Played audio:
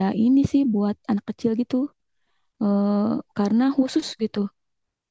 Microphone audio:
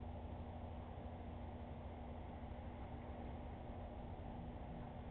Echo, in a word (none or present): none